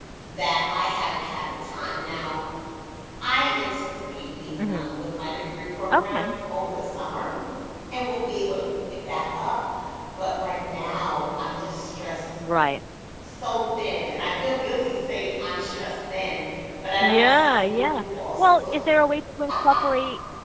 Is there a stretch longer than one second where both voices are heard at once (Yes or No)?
Yes